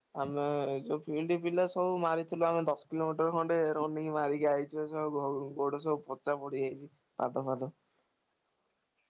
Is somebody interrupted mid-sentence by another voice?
No

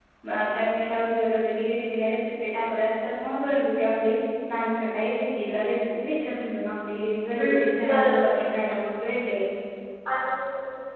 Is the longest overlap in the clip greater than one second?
Yes, from 7.4 s

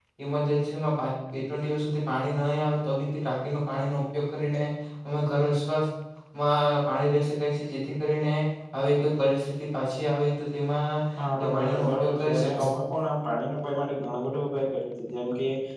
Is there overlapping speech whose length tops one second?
Yes, from 11.2 s

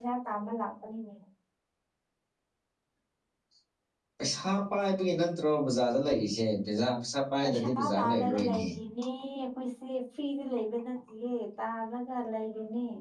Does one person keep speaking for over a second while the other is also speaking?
Yes, from 7.4 s

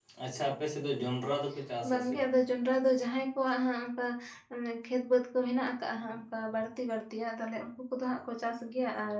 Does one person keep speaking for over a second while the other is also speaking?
No

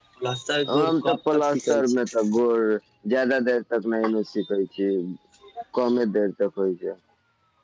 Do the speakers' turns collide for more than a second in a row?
Yes, from 0.7 s

